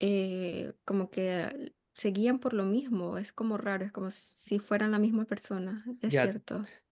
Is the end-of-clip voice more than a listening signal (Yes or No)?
Yes